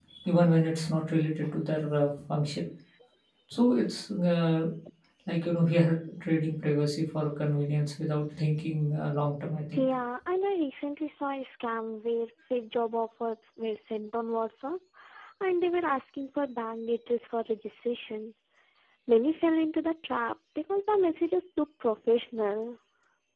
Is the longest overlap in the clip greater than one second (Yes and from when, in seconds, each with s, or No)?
No